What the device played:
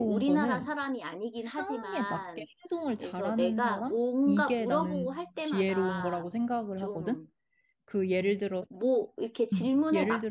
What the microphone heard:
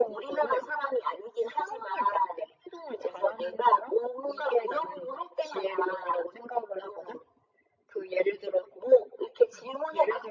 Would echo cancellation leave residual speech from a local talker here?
No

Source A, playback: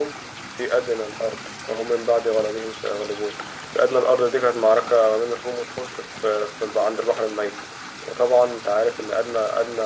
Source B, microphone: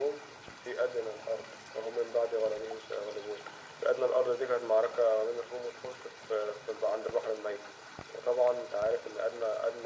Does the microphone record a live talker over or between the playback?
No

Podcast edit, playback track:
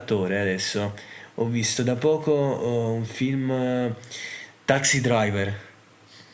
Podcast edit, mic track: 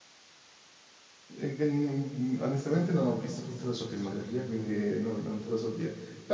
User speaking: Yes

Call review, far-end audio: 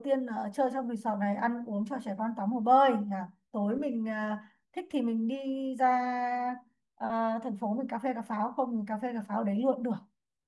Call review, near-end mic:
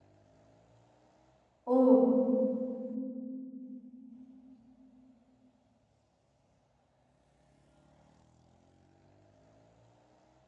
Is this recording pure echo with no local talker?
No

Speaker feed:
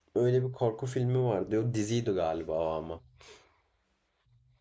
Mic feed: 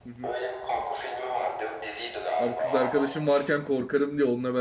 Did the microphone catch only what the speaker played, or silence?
No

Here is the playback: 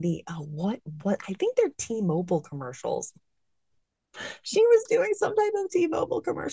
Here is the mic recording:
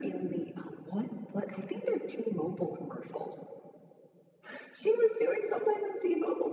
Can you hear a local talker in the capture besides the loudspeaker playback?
No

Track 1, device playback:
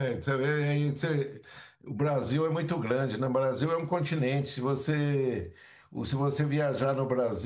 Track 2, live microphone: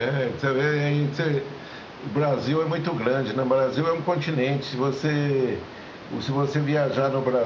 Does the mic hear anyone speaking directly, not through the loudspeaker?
No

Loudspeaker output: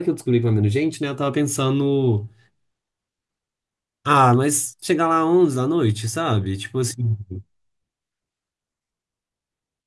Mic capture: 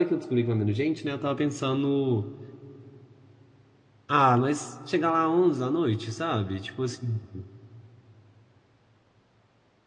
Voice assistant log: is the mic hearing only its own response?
Yes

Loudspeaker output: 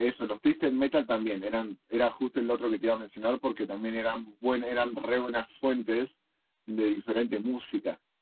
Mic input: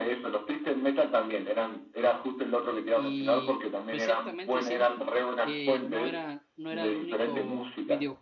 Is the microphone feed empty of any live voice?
No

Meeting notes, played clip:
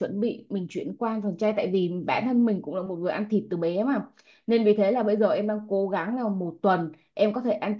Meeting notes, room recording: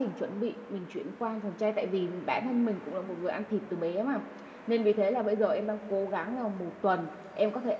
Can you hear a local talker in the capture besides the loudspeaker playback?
No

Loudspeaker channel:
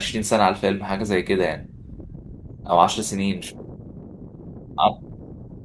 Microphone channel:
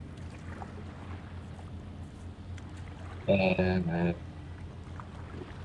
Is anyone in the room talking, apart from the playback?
Yes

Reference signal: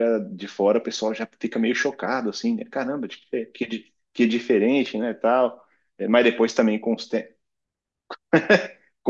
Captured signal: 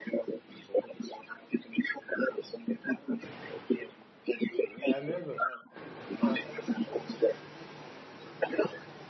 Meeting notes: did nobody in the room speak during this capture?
No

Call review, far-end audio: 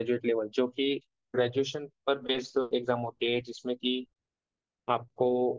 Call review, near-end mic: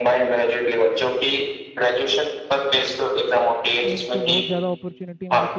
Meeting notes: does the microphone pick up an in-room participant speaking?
Yes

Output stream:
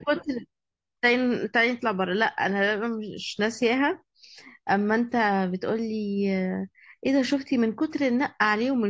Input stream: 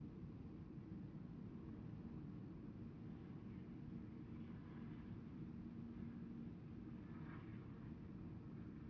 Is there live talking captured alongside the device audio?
No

